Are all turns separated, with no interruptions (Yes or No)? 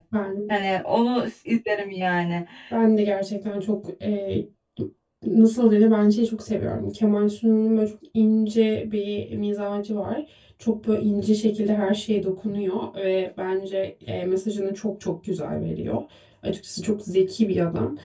Yes